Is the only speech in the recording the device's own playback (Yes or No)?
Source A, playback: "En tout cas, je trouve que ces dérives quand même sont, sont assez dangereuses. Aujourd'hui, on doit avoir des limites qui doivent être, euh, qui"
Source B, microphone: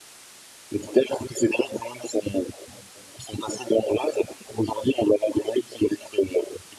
Yes